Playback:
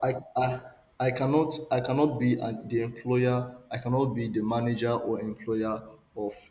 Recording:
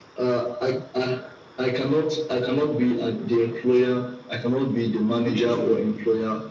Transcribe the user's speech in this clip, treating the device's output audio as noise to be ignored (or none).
we need to